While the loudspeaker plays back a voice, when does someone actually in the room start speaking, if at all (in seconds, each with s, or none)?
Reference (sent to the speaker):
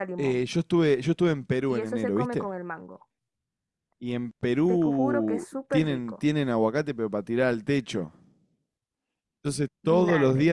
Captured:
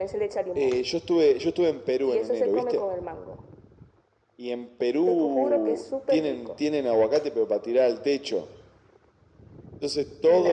none